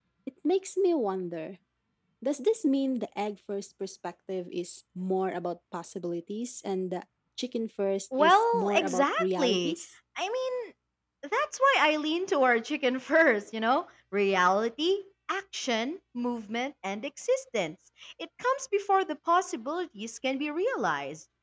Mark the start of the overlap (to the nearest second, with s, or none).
8 s